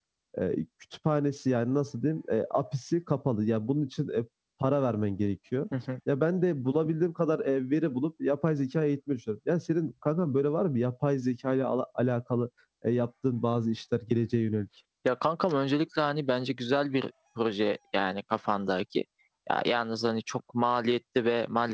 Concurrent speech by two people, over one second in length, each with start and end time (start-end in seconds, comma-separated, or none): none